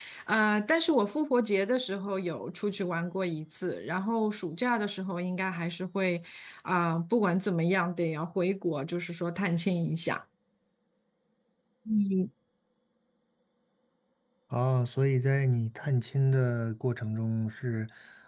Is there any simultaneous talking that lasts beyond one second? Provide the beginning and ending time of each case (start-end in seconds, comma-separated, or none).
none